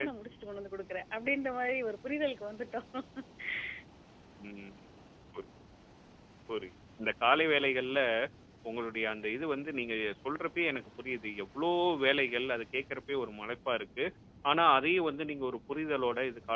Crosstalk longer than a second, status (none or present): none